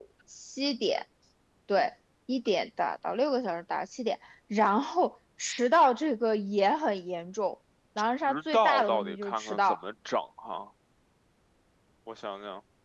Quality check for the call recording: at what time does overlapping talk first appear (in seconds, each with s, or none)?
8.3 s